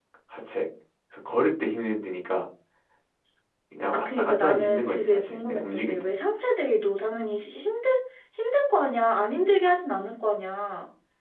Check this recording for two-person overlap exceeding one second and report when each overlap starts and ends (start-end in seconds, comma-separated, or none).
3.9-6.1